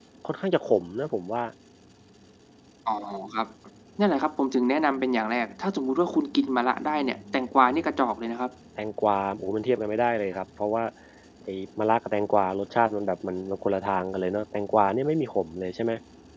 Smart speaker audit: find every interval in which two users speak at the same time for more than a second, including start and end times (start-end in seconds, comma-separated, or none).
none